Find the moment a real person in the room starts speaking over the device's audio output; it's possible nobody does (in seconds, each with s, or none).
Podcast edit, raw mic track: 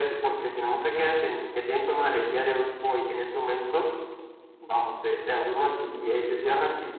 none